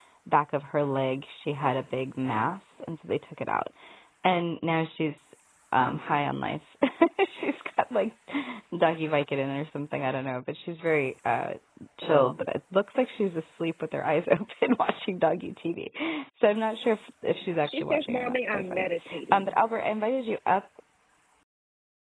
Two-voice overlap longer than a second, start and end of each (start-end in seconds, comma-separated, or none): 17.6-18.9